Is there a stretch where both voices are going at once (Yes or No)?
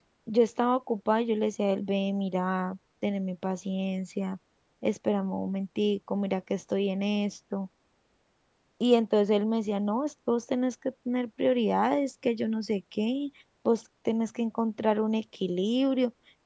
No